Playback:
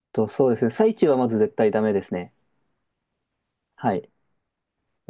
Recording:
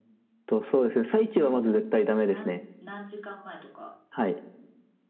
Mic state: both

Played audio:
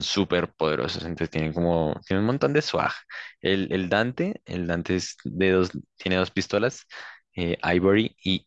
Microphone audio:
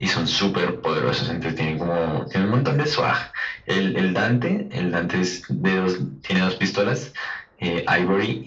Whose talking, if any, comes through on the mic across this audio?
echo only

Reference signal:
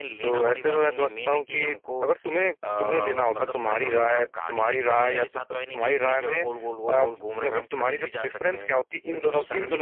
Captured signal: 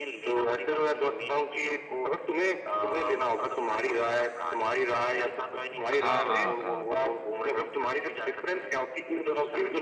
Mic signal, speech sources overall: both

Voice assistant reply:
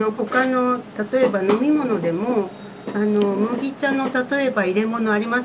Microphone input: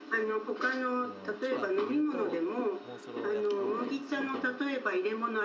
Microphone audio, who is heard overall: both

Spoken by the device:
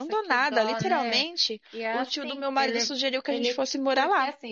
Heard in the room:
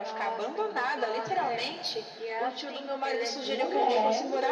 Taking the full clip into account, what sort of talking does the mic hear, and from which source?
both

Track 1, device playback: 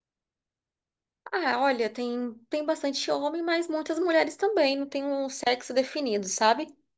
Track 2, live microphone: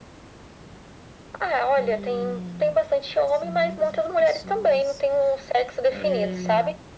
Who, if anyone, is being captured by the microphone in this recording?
both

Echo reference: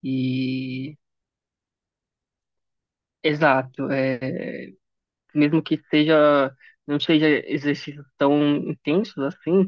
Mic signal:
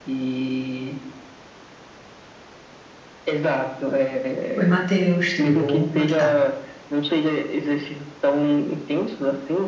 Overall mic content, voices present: both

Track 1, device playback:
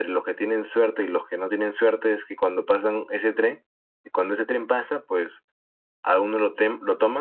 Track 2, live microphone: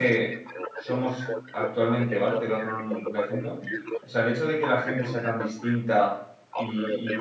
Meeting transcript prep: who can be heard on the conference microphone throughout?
both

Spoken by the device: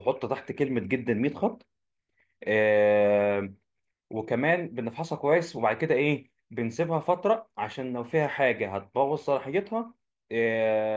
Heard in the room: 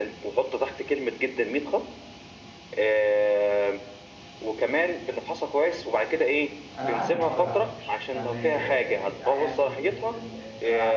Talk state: both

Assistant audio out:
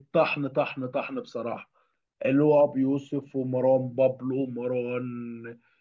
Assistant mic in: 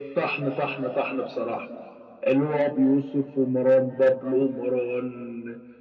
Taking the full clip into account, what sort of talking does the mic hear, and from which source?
echo only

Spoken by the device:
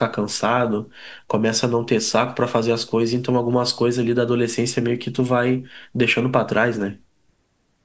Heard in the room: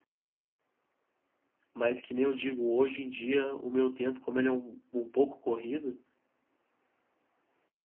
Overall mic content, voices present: user only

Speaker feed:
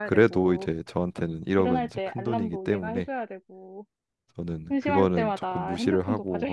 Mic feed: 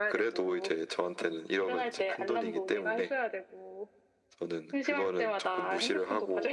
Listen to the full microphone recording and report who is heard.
echo only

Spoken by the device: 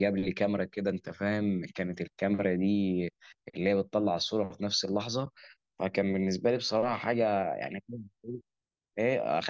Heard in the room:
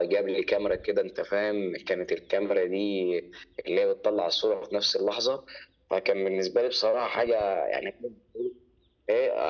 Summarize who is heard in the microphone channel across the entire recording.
echo only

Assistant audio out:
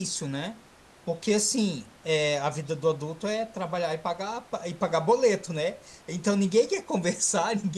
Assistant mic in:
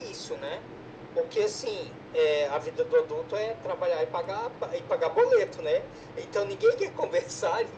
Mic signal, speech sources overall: echo only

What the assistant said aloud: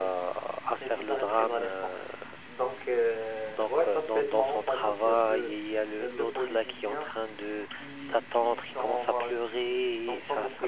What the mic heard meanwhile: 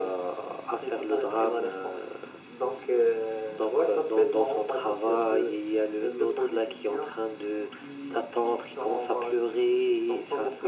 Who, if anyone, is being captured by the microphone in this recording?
echo only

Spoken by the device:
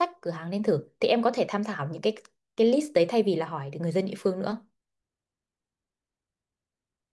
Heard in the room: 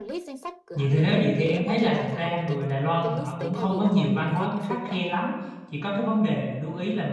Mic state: both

